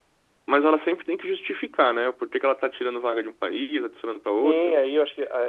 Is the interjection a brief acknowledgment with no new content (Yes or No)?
No